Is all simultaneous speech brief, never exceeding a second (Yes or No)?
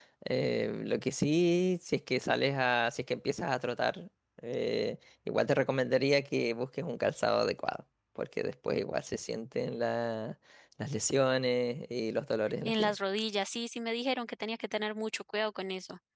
Yes